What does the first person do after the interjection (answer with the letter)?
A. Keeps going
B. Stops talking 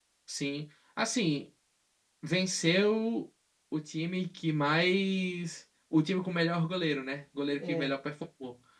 A